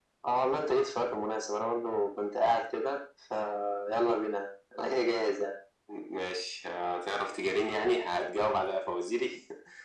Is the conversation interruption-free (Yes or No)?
Yes